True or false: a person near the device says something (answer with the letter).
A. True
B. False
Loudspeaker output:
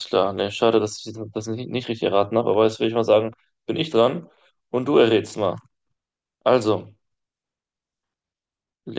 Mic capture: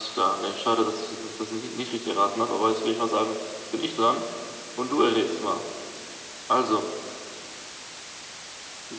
B